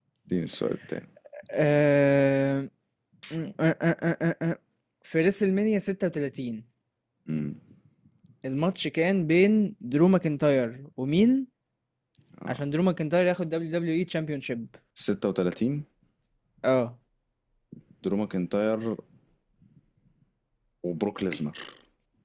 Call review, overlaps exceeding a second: none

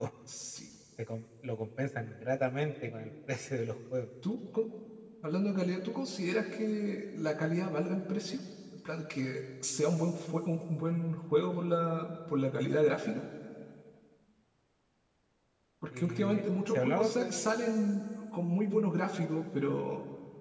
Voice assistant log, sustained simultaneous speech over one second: present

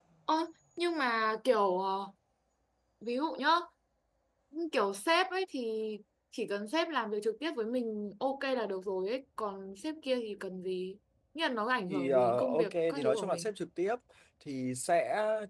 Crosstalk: present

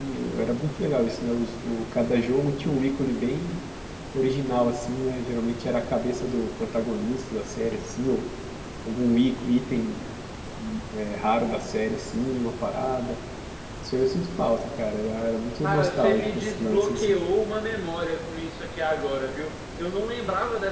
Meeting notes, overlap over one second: present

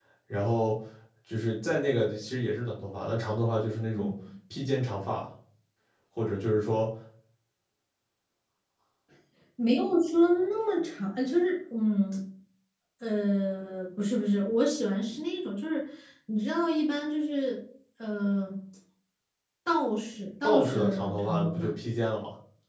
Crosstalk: present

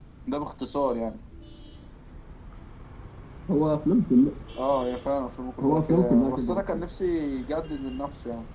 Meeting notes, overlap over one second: present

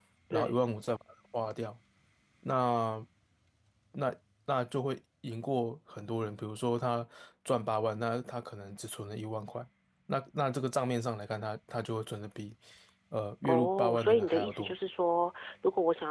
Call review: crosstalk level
present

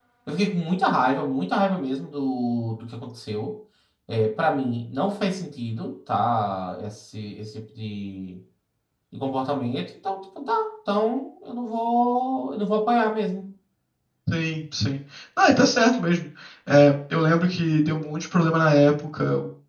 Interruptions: none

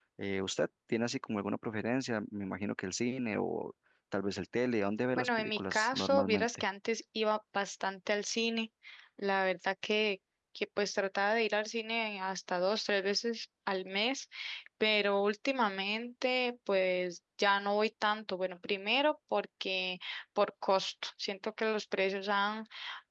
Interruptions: present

